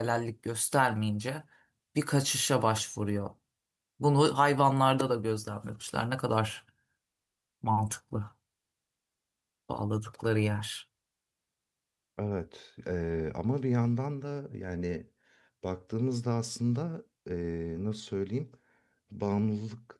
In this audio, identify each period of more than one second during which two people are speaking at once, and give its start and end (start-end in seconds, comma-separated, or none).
none